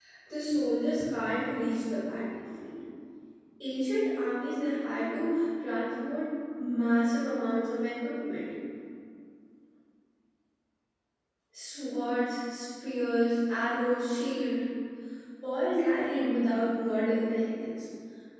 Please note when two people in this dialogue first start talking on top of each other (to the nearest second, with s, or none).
none